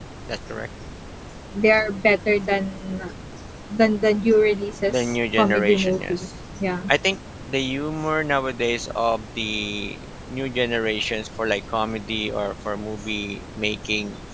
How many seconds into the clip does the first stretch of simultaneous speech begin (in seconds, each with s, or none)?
4.9 s